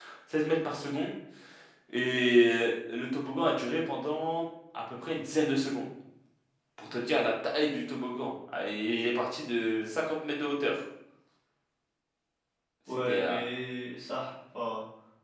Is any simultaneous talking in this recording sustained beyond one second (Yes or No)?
No